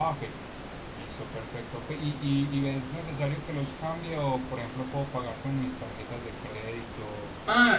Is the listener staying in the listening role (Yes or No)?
No